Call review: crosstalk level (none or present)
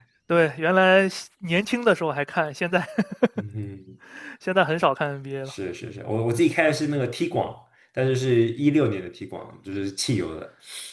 none